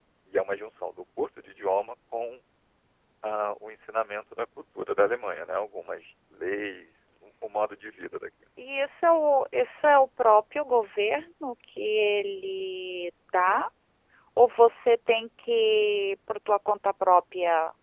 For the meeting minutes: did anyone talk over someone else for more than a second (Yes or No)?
No